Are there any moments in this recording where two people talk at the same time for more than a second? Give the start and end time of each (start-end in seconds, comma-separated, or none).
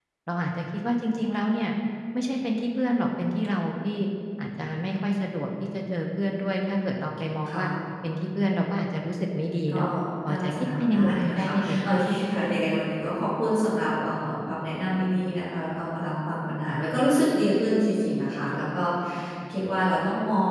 10.3-11.8